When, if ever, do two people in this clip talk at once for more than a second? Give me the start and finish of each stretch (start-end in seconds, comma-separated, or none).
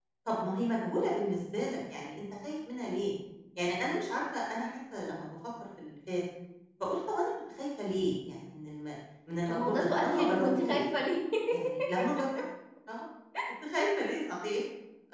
9.5-10.8